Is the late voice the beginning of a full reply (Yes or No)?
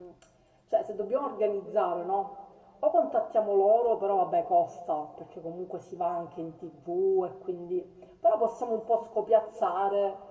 No